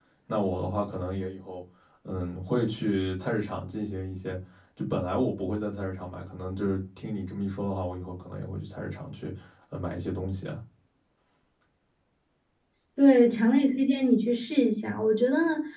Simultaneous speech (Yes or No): No